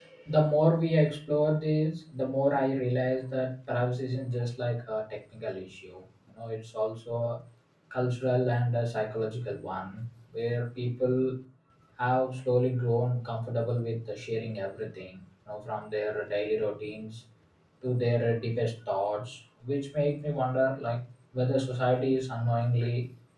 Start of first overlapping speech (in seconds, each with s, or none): none